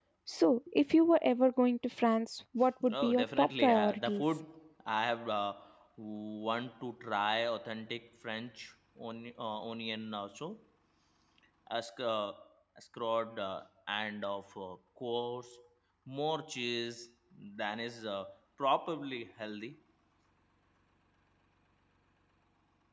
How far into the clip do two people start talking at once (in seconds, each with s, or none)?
2.8 s